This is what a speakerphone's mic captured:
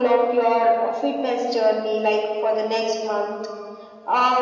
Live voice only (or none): none